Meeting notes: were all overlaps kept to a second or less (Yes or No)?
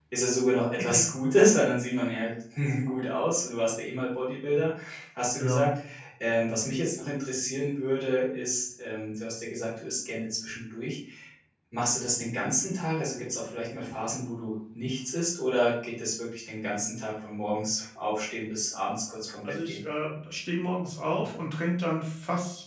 Yes